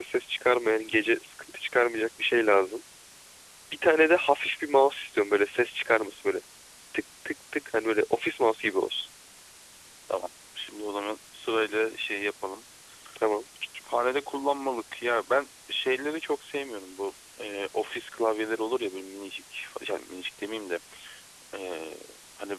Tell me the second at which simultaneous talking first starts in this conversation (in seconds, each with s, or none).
none